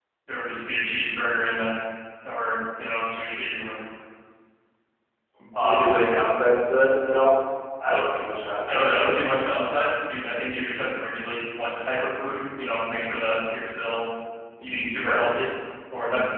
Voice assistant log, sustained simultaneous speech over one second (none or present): none